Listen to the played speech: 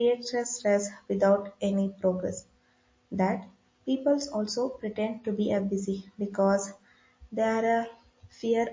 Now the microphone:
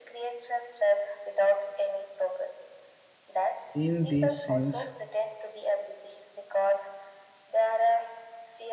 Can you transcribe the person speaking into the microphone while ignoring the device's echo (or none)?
In this sense,